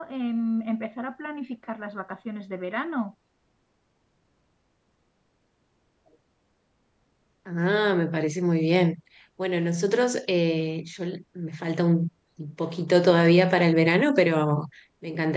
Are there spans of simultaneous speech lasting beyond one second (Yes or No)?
No